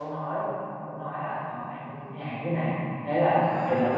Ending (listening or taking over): taking over